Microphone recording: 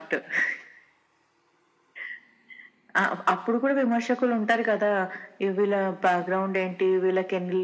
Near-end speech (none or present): none